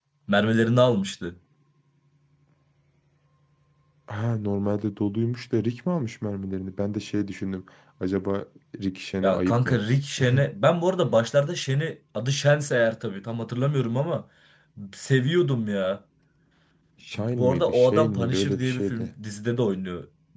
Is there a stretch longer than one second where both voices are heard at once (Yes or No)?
Yes